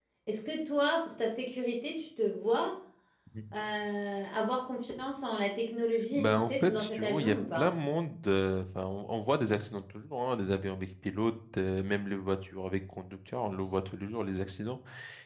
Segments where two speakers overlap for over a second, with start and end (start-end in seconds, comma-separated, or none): 6.2-7.7